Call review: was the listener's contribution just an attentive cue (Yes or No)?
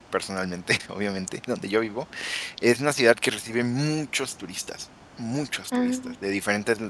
Yes